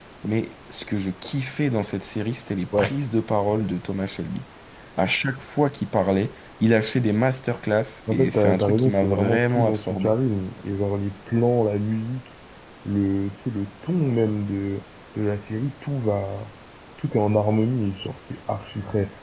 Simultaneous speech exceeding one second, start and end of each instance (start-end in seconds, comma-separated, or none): 8.1-10.1